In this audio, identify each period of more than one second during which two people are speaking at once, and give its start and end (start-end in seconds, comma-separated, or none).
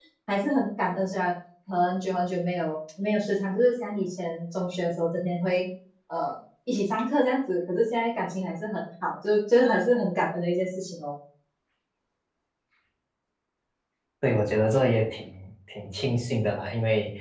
none